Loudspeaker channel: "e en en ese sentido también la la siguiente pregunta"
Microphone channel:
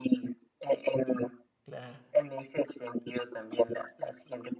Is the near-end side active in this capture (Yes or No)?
Yes